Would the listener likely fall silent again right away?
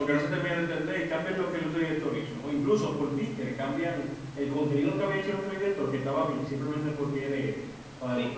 No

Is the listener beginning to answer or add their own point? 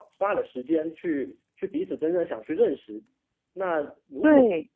No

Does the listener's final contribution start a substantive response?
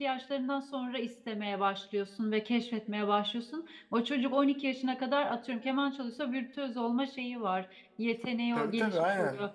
Yes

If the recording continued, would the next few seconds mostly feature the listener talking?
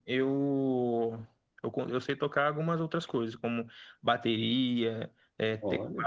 No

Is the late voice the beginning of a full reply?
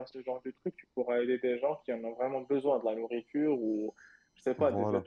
No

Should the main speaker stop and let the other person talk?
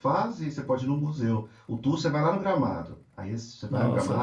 No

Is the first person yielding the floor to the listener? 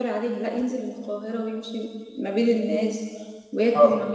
Yes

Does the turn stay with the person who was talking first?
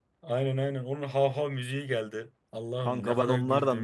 No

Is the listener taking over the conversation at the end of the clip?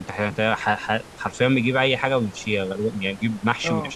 Yes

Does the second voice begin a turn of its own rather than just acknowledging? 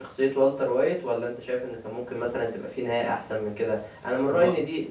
No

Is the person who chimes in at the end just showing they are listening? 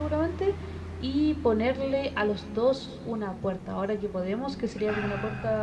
Yes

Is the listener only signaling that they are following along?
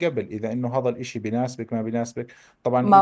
Yes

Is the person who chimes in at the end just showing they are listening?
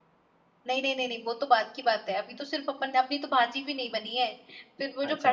Yes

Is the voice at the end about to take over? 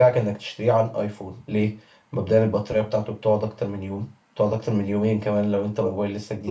Yes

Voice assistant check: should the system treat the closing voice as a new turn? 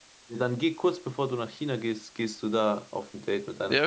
Yes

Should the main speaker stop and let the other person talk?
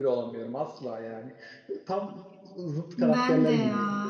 Yes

